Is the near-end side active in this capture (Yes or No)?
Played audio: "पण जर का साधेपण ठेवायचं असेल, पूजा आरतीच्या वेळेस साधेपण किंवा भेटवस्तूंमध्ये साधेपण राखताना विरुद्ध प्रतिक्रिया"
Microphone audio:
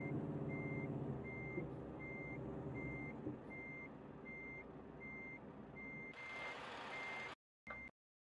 No